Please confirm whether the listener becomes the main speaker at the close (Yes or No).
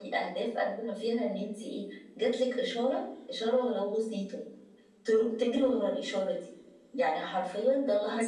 No